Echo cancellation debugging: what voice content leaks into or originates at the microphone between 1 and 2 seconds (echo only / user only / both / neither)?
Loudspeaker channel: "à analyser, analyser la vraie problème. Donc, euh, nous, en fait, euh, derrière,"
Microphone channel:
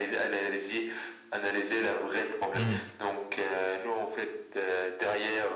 echo only